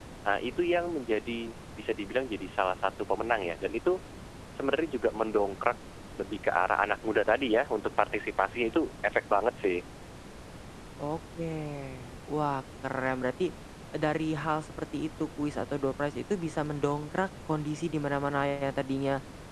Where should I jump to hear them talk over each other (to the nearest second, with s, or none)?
none